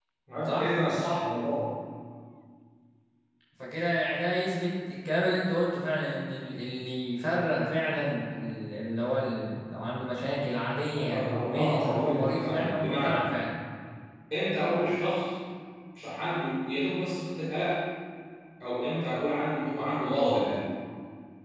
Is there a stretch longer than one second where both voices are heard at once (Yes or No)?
Yes